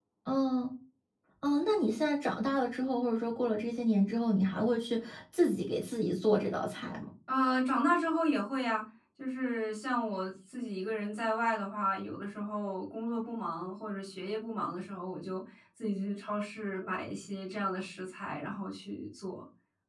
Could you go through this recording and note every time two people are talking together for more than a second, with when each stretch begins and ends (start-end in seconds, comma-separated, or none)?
none